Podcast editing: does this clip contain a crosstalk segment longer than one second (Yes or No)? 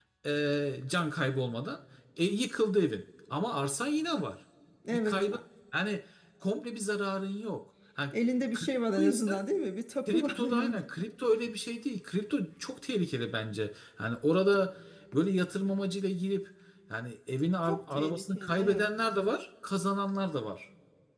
Yes